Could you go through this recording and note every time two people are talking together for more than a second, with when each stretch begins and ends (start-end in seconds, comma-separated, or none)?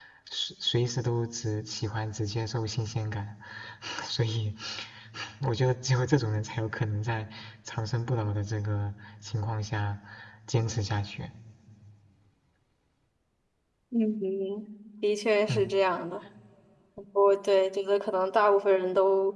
none